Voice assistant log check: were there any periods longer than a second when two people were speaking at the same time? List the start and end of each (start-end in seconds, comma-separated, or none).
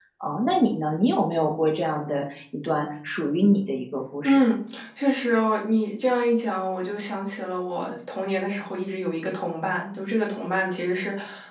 none